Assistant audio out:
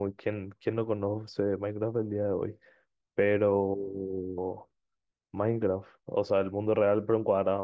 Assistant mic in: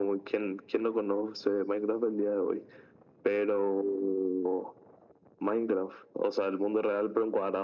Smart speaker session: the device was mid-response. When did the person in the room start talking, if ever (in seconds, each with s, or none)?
none